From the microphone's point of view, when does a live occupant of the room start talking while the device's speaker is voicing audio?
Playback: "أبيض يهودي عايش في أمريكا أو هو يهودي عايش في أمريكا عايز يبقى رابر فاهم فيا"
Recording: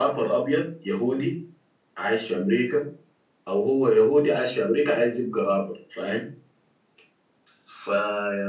none

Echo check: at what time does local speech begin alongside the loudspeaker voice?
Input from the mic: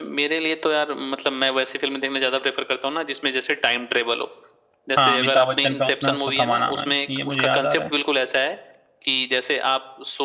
5.0 s

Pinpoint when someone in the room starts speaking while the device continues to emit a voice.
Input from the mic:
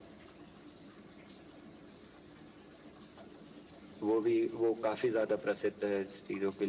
4.0 s

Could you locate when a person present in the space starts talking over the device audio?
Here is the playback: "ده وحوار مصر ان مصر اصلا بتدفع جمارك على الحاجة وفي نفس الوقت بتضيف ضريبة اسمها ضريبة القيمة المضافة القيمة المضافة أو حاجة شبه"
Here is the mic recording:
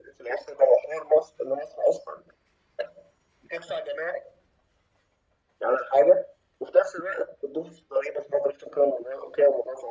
none

